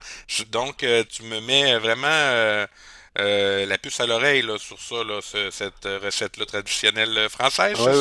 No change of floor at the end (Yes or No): No